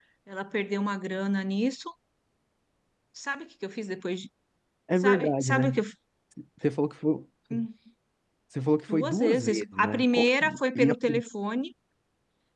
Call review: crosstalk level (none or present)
present